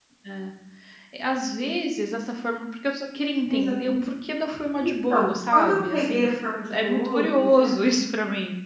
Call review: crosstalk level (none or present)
present